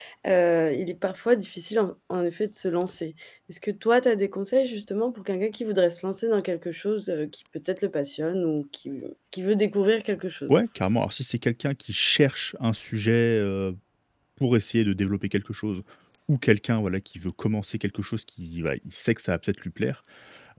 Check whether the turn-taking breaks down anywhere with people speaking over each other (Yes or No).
No